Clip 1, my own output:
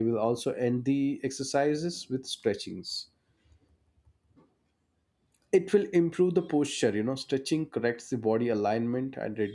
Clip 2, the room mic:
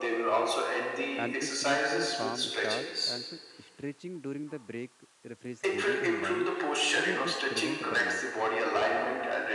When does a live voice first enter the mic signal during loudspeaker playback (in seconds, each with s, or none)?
1.2 s